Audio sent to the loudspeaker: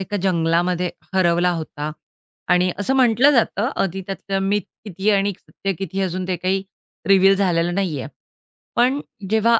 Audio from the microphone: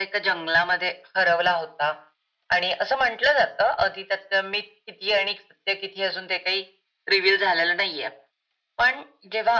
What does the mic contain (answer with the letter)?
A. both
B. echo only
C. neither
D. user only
B